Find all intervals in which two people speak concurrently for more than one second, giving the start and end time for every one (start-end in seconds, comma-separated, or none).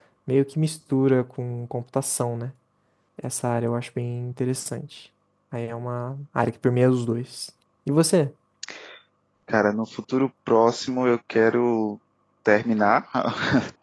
none